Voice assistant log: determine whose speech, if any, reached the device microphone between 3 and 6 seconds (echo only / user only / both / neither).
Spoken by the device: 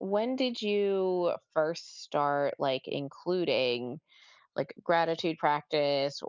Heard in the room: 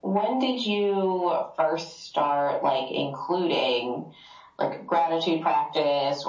echo only